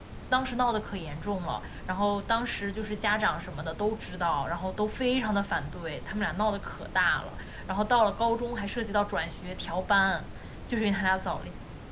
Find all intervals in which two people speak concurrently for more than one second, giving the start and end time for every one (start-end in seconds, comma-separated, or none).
none